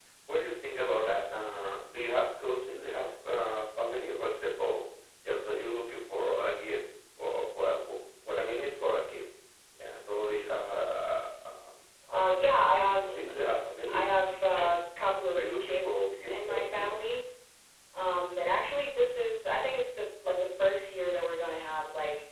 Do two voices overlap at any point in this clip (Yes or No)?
Yes